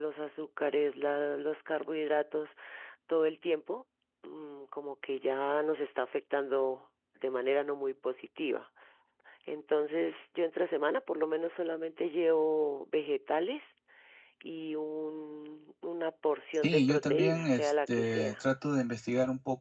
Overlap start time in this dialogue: 17 s

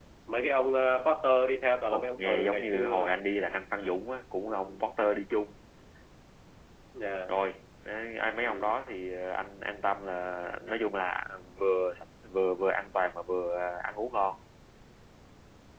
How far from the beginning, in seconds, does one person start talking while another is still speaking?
2 s

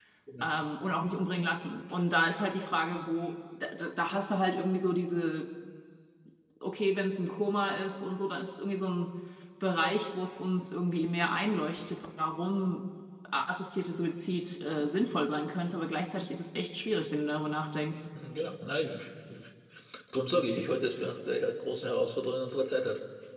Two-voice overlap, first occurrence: none

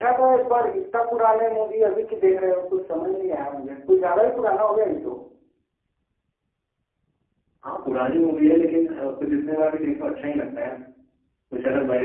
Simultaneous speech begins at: none

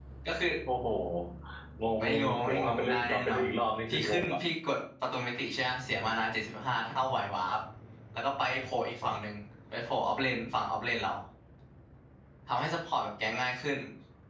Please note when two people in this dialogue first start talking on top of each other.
2 s

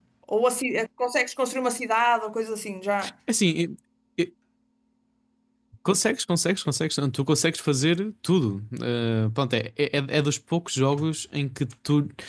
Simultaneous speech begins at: none

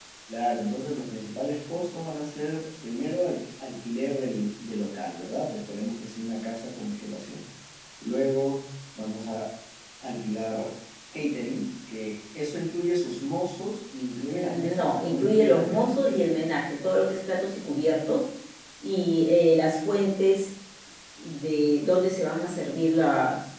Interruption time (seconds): 14 s

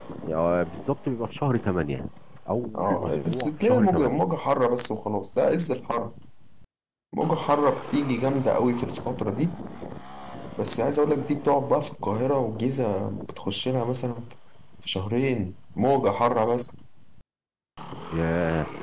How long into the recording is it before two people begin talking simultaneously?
3 s

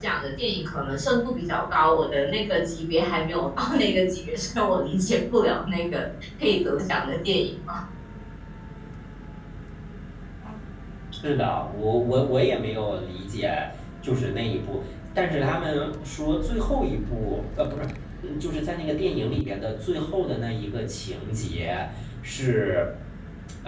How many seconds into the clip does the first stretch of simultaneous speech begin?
none

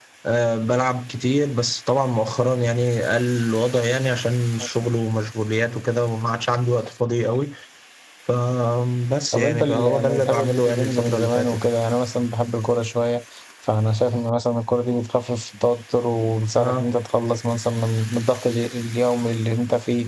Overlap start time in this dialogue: 9 s

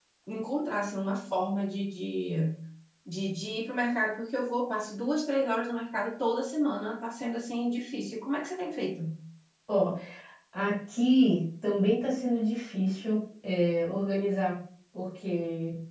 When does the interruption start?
none

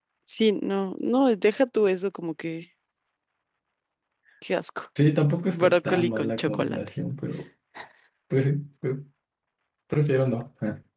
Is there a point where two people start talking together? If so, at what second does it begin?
6 s

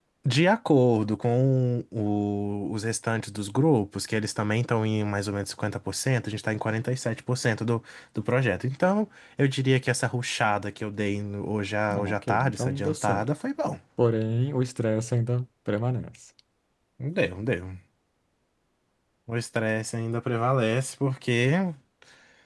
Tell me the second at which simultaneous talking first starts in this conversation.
12 s

